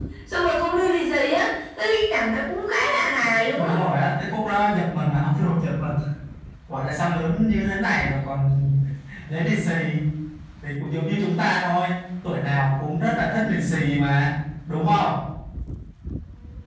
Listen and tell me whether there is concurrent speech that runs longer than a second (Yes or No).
No